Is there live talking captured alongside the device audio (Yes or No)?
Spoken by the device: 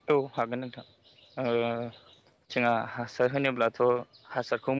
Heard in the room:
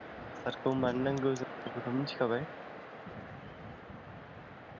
Yes